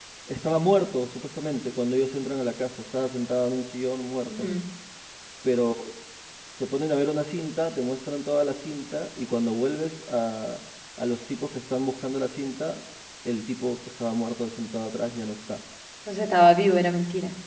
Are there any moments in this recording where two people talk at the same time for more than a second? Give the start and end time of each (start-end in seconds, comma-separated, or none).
none